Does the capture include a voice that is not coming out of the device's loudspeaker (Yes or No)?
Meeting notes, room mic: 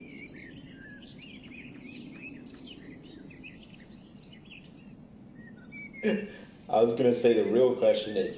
Yes